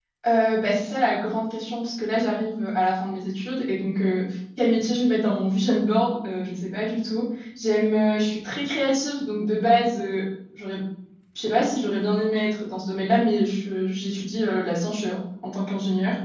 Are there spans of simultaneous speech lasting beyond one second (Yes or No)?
No